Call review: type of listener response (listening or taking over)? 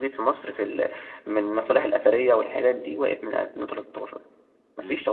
taking over